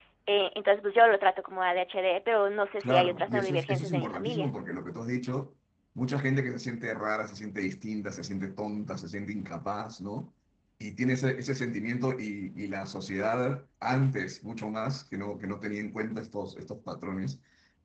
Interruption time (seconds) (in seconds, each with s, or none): 2.8 s